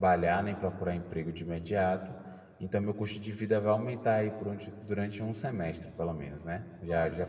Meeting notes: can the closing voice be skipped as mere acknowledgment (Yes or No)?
Yes